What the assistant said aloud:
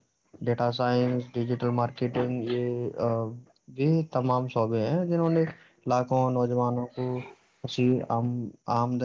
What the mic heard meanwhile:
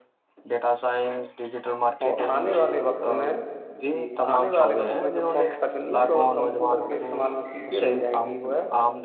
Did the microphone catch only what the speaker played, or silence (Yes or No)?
No